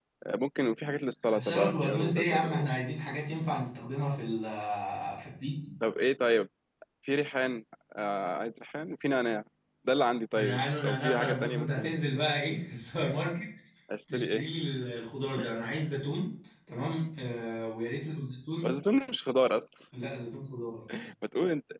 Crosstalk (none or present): present